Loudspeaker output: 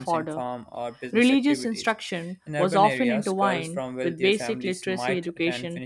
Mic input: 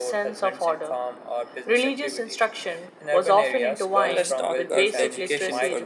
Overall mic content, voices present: both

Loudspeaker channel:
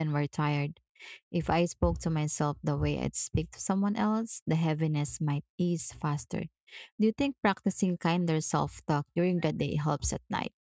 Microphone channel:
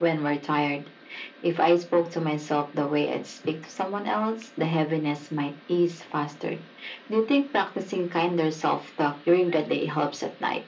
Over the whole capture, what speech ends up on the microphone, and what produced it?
echo only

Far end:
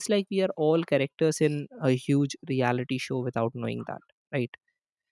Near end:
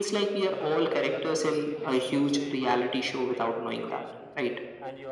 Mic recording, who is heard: both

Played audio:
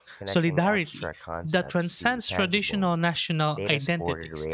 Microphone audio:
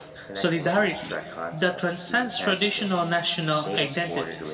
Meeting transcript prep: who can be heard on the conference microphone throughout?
echo only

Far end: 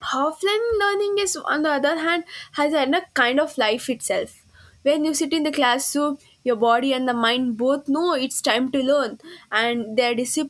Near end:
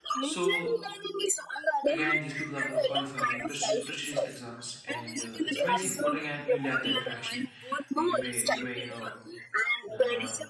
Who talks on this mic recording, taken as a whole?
both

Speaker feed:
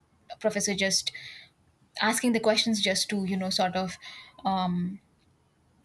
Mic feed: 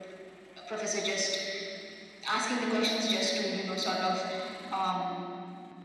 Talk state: echo only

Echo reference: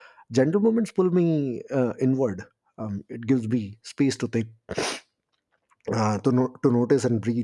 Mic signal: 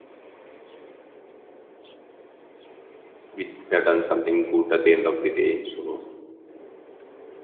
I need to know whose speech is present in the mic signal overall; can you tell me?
user only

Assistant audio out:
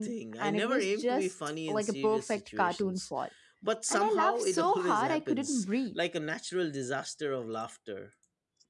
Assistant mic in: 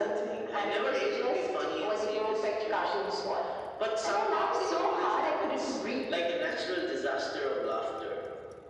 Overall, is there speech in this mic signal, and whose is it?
echo only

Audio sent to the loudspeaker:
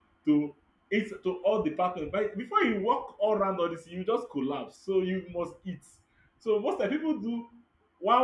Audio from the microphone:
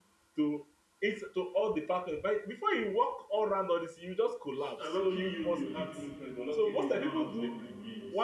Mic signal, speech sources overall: both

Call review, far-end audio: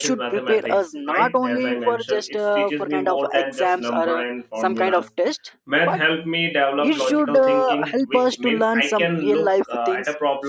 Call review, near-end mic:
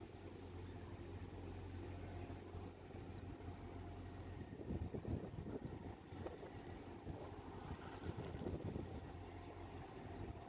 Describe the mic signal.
neither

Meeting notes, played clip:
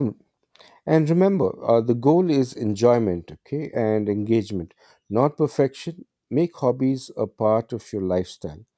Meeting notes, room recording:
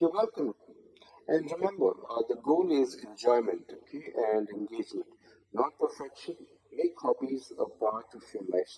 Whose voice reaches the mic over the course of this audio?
echo only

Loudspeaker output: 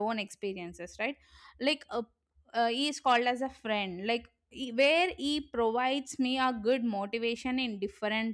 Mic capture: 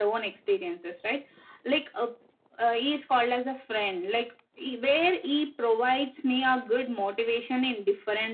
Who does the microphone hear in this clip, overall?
echo only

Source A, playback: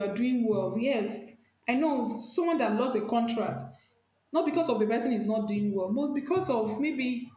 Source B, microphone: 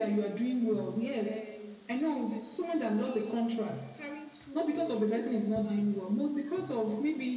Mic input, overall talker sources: both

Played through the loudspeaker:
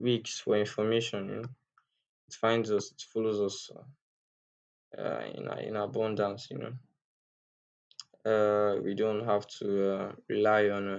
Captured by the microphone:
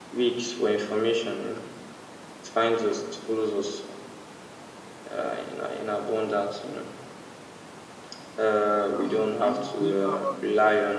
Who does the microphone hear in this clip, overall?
both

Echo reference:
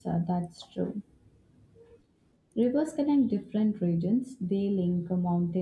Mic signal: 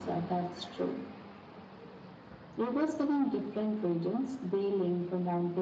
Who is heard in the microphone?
echo only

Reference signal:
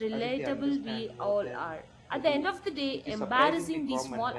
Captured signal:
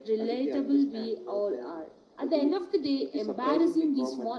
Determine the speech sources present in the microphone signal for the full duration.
echo only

